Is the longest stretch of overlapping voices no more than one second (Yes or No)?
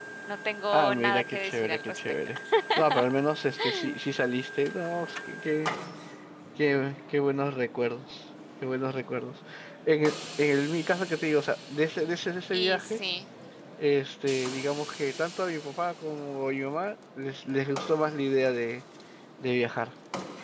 No